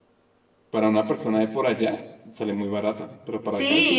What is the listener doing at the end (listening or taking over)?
taking over